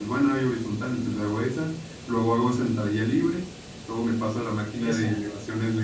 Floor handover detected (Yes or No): No